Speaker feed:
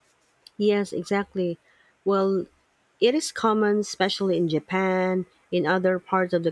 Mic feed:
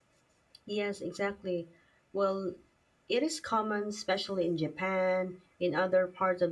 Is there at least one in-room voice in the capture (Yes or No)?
No